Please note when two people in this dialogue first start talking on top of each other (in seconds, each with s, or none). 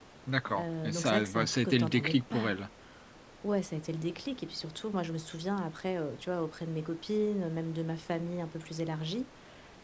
0.6 s